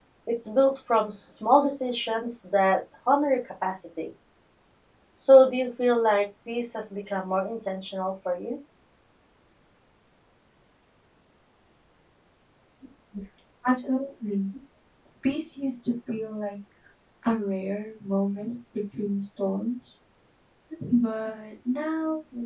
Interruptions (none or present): none